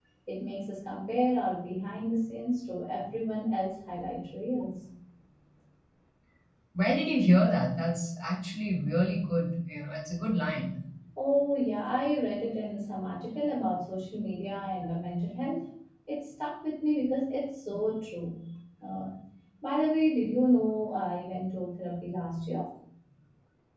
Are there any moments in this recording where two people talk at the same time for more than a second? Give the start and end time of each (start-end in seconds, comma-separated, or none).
none